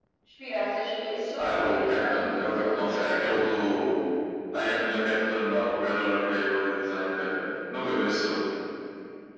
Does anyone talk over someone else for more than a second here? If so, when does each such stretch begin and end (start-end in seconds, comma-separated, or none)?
1.4-2.8